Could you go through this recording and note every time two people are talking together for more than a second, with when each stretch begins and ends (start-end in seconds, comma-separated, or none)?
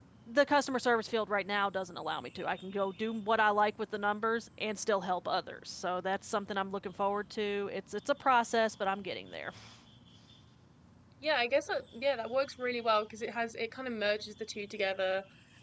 none